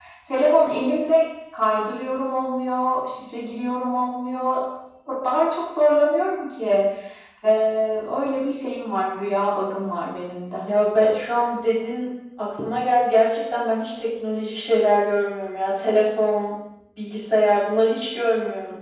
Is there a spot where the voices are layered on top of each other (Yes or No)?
No